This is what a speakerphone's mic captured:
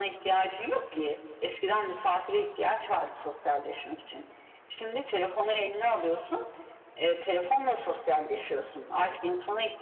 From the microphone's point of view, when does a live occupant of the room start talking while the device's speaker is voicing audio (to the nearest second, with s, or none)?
none